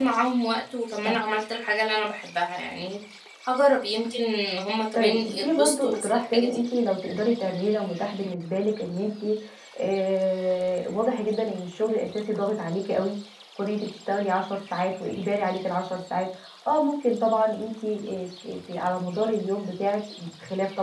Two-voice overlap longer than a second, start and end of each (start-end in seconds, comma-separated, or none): 4.9-6.6